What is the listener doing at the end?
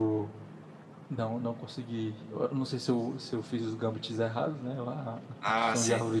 listening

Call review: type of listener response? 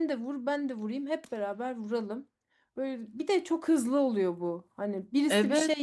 listening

